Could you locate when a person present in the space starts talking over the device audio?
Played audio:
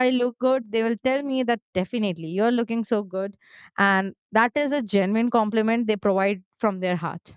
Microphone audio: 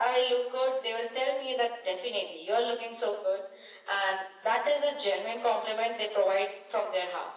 none

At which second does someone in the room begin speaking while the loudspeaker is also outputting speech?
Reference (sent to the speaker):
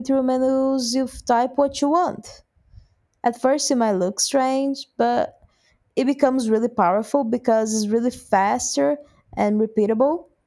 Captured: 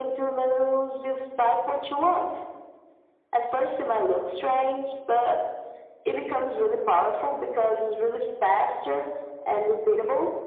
none

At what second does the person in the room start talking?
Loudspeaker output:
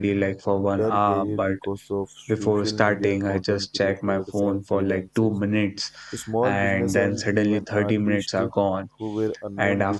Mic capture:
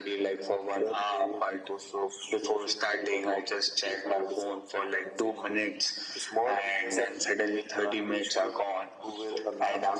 none

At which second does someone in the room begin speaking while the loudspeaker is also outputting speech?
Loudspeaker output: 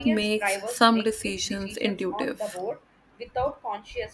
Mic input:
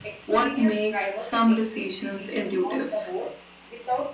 none

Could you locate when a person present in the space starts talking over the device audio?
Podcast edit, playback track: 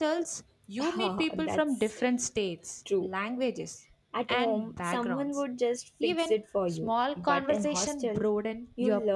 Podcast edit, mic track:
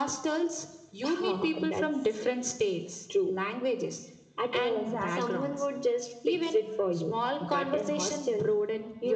4.7 s

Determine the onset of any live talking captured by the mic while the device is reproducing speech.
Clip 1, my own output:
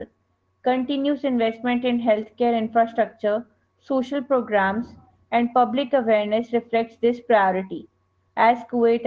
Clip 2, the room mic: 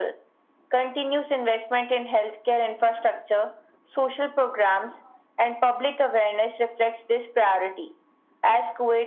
none

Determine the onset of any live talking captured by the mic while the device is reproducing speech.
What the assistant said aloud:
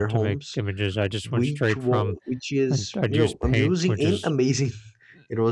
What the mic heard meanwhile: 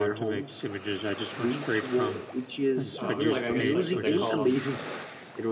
3.0 s

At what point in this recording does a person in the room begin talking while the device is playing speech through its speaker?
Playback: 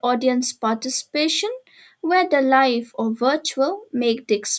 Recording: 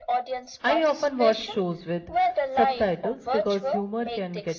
0.6 s

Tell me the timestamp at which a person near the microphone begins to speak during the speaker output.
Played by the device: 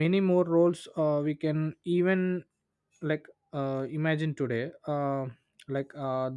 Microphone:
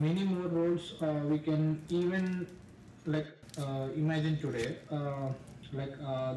none

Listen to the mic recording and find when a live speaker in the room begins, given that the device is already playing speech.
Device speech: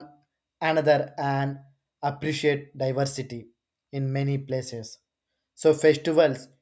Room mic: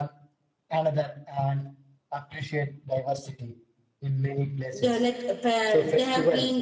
4.7 s

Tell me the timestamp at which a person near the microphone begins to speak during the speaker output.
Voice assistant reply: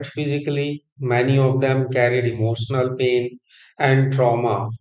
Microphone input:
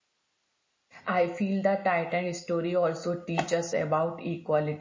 1.0 s

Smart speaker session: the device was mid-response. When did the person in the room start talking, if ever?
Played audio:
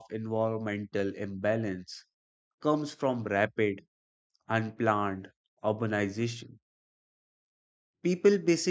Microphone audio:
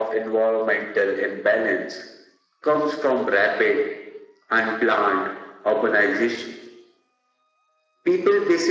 none

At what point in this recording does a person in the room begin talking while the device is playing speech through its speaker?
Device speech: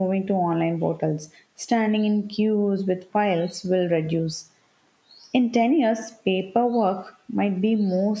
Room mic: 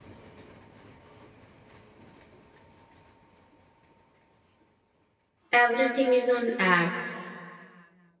5.5 s

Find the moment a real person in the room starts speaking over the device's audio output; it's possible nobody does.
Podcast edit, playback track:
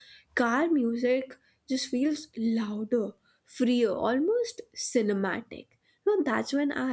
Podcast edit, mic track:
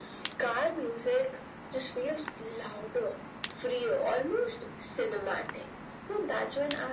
none

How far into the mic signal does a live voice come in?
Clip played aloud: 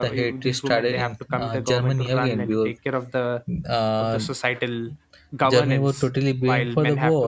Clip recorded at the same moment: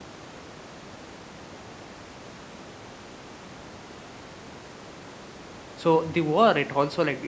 5.7 s

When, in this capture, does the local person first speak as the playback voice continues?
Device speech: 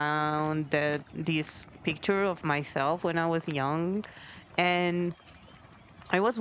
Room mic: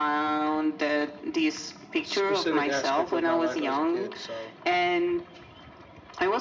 2.0 s

